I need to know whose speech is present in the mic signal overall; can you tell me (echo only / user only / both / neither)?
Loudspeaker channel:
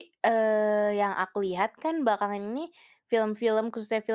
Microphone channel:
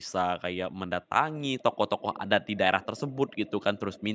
user only